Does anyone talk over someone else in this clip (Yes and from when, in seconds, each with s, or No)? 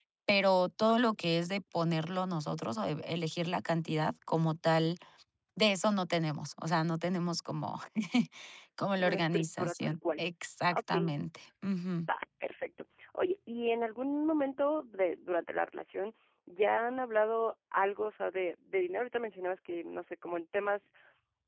Yes, from 9.0 s